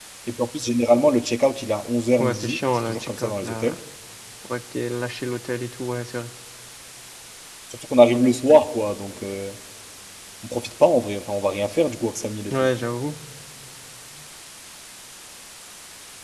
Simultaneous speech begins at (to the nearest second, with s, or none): 2 s